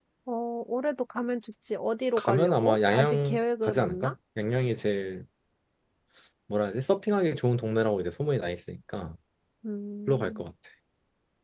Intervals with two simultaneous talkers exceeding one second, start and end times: 2.2-4.1

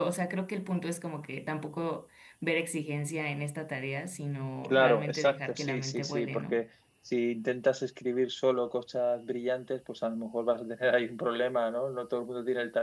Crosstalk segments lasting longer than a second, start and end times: 4.6-6.6

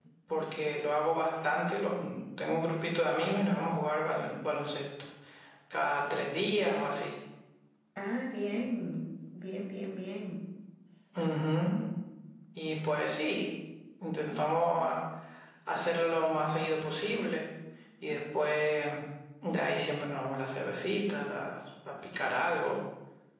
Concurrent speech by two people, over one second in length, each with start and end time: none

